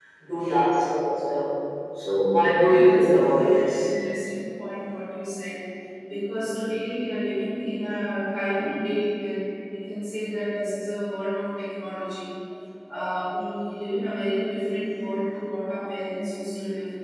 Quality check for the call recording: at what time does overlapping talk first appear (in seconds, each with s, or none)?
2.4 s